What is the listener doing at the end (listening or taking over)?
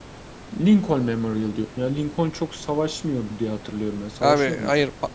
taking over